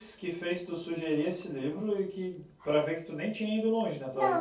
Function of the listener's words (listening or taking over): taking over